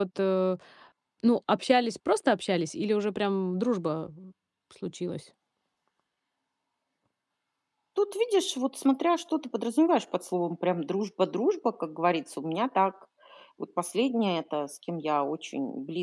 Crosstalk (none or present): none